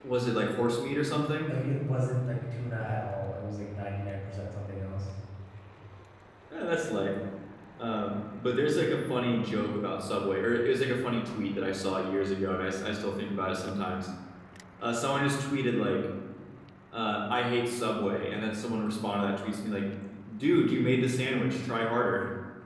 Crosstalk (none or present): none